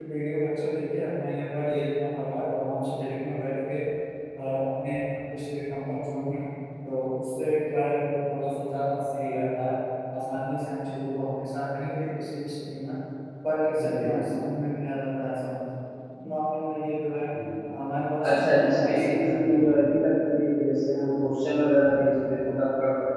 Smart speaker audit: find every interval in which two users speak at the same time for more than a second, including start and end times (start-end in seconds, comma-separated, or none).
18.3-19.6